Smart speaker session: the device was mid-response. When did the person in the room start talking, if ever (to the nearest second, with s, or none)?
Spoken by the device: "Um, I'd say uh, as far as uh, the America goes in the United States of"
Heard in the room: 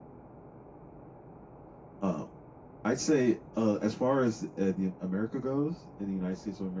none